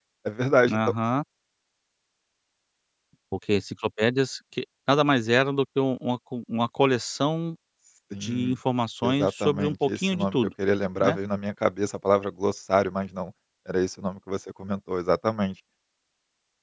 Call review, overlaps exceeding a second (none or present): present